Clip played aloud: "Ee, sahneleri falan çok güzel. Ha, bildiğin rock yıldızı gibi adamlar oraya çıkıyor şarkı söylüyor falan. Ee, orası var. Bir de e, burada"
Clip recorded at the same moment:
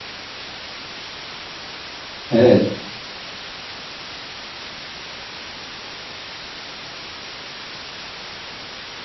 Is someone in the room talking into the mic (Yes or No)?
Yes